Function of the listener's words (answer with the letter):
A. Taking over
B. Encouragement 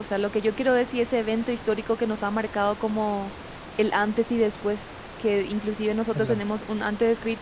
B